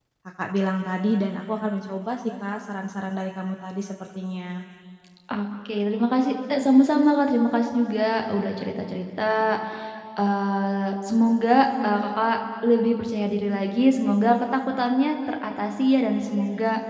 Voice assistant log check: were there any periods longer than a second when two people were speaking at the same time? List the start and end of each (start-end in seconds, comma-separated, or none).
none